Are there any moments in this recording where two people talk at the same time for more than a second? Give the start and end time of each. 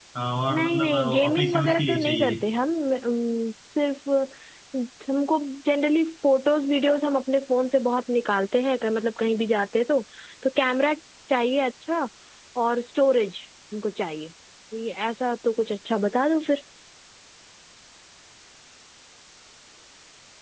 0.5-2.4

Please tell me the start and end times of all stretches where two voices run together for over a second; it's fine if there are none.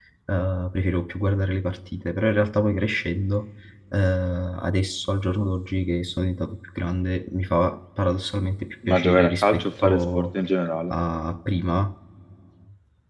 8.9-10.3

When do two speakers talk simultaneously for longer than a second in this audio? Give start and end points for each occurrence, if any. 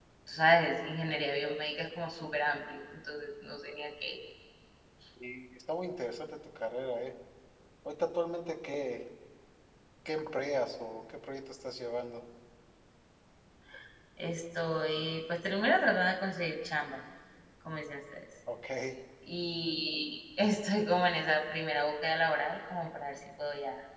none

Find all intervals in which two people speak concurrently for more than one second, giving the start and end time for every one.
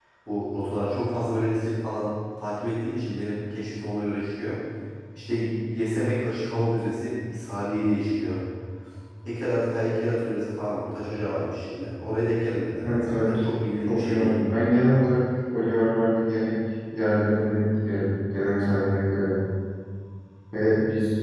none

